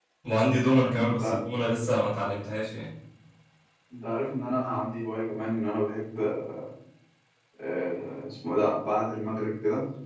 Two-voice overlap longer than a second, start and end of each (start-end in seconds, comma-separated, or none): none